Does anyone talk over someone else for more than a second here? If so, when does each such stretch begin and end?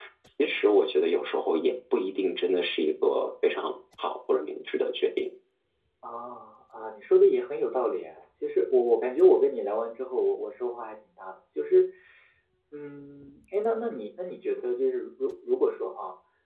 none

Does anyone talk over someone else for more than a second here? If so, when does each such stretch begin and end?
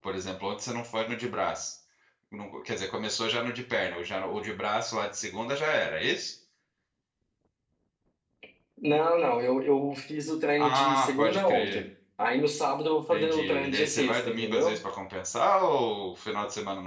10.6-11.8, 13.1-14.7

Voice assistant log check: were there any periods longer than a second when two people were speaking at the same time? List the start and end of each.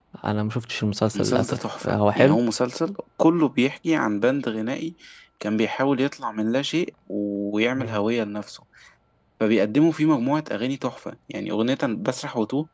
1.1-2.4

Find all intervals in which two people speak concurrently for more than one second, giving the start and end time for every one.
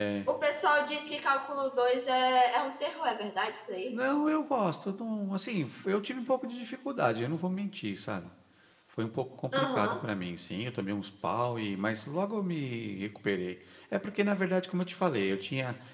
none

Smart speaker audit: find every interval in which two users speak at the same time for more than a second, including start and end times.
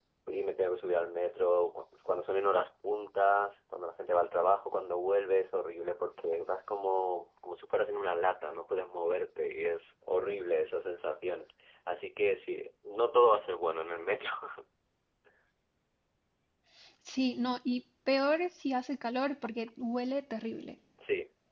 none

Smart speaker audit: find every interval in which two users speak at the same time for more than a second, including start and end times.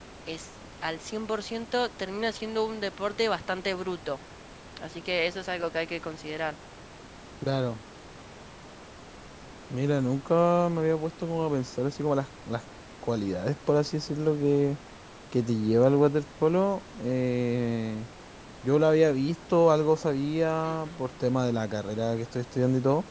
none

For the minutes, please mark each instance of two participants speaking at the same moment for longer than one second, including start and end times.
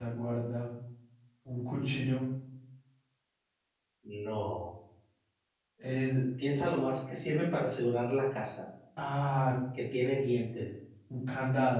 none

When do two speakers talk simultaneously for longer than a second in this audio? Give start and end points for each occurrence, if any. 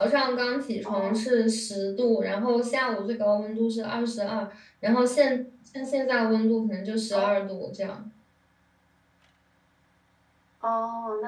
none

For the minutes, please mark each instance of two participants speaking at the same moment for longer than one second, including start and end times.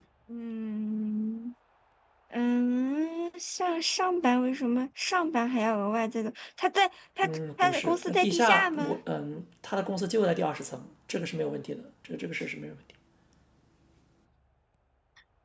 7.2-9.0

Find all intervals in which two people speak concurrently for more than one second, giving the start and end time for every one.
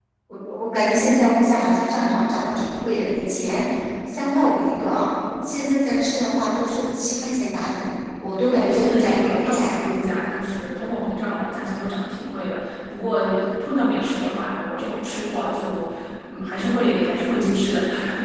8.5-10.0

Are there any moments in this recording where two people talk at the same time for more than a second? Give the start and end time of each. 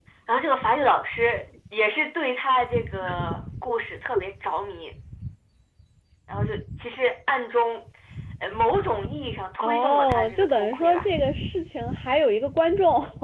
9.6-11.1

